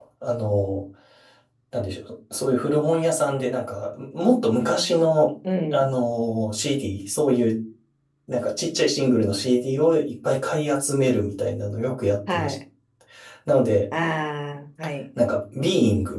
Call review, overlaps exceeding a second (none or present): none